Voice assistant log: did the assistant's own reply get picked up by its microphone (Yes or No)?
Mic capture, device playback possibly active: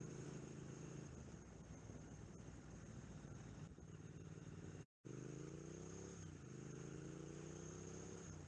No